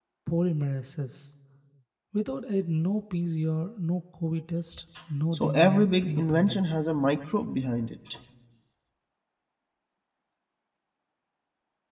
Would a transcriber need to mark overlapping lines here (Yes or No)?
Yes